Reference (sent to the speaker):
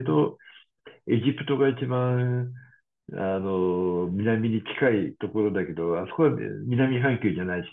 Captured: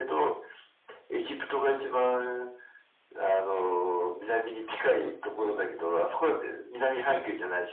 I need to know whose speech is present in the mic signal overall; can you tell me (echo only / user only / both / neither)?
both